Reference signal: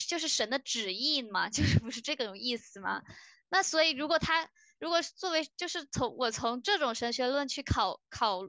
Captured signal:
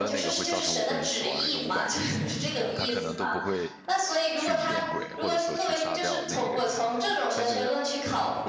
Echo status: present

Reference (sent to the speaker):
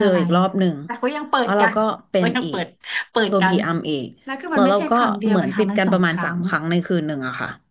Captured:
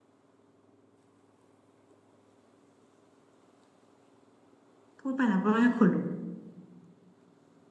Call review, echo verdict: none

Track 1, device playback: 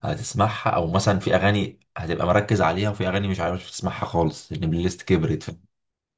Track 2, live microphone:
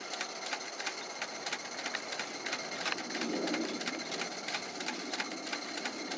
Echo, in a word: none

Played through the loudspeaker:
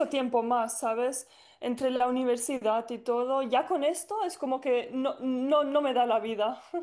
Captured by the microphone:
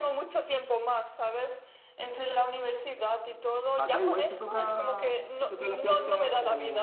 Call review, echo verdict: present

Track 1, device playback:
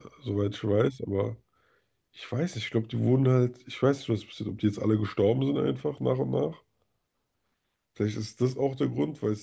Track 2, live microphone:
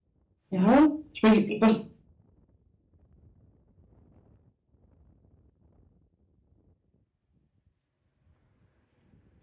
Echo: none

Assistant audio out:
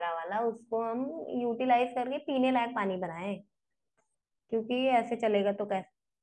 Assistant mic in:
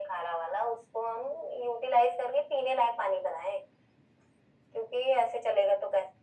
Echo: present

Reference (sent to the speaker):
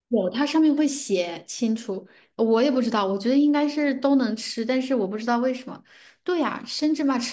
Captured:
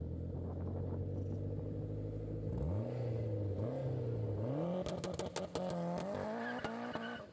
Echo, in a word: none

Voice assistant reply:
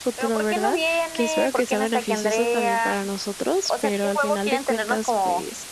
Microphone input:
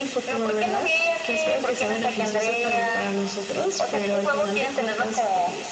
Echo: present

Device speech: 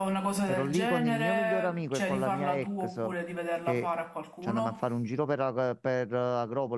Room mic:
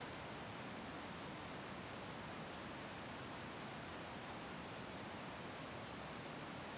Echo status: none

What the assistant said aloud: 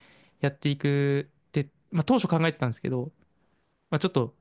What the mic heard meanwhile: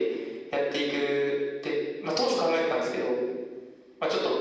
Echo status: present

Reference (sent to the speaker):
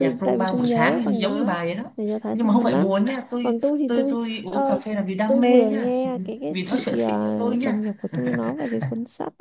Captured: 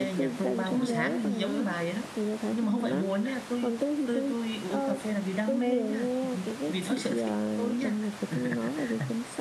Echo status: present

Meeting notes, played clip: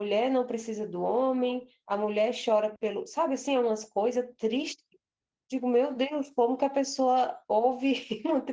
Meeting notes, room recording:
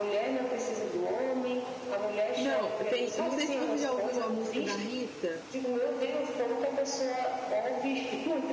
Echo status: present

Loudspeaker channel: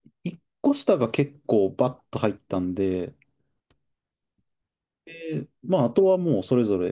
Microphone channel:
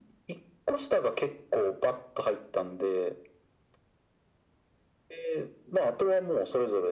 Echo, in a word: present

